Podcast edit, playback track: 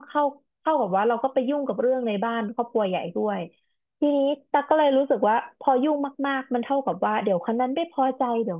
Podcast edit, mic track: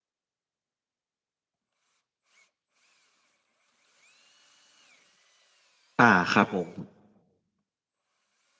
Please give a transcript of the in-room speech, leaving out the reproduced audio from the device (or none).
อ่าครับผม